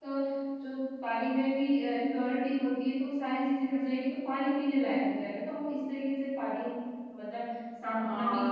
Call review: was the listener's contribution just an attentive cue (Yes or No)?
No